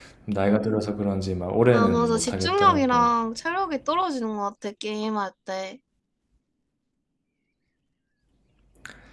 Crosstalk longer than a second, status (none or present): present